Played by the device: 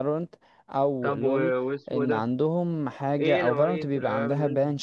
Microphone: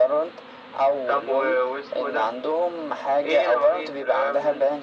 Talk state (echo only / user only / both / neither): echo only